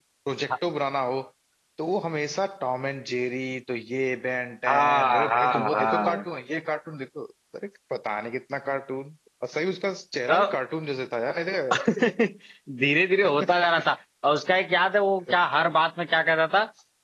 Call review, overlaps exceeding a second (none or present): present